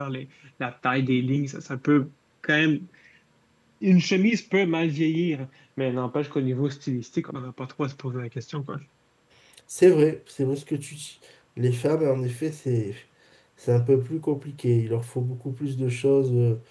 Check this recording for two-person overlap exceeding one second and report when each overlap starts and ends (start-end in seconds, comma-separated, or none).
none